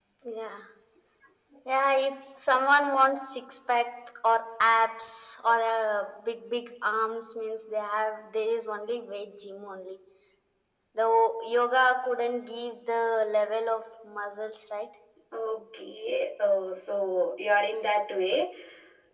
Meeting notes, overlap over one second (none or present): none